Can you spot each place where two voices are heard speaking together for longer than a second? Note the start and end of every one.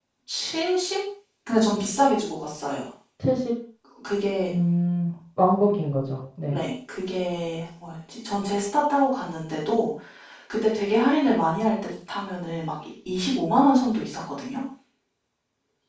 none

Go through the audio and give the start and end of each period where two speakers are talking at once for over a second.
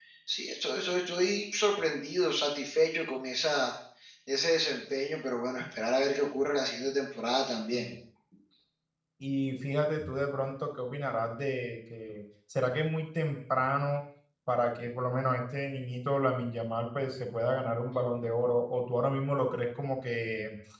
none

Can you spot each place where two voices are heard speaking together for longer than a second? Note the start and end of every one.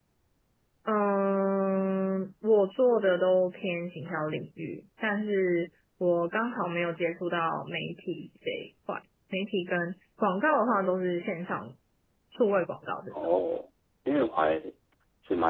none

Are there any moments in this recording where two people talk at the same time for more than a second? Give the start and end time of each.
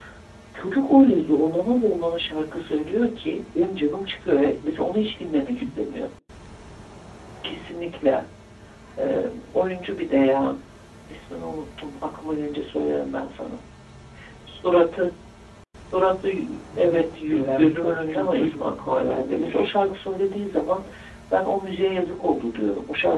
16.8-19.8

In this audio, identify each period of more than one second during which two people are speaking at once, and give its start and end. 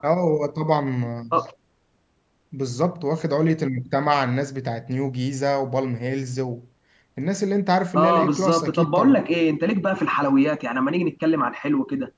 8.0-9.2

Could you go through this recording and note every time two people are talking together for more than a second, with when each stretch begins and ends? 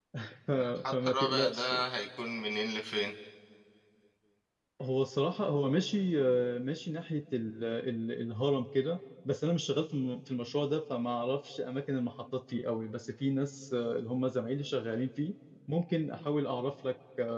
0.5-1.8

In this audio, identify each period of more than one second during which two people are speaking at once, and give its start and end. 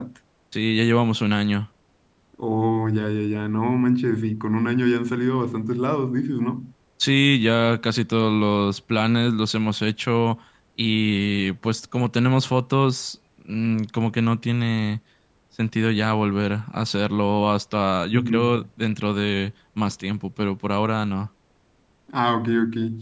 none

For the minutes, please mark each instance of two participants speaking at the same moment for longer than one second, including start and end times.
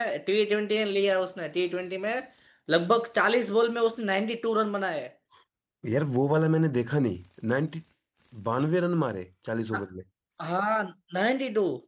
none

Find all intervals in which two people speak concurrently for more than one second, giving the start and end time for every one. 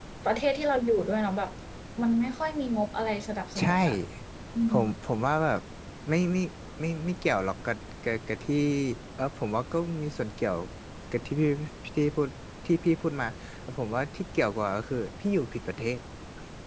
none

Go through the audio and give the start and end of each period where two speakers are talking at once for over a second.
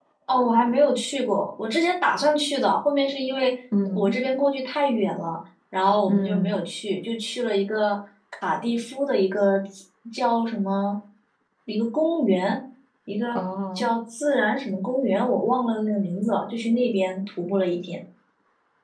none

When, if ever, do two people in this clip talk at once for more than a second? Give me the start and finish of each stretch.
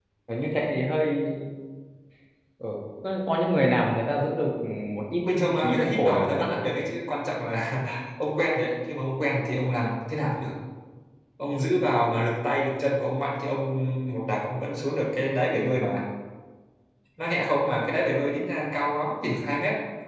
5.4-6.6

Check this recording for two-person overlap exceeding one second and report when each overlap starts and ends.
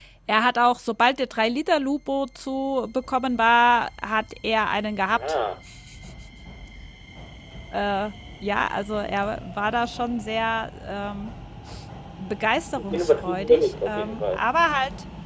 12.9-14.4

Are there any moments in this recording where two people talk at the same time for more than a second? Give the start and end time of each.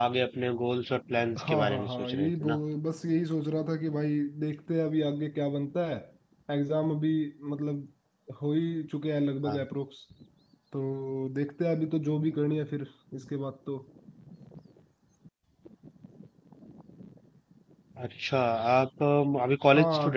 1.4-2.6

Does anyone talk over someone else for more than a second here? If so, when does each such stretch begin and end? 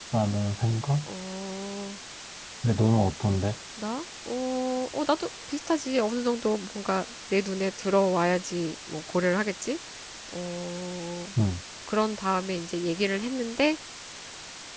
none

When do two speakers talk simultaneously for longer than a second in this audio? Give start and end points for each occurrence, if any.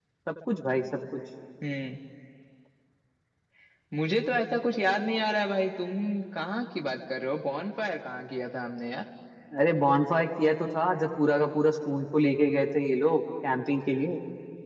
none

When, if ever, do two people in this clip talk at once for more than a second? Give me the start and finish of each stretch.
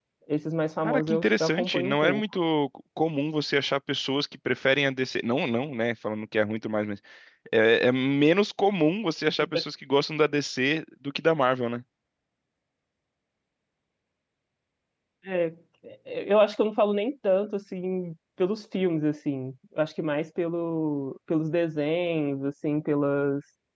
0.8-2.2

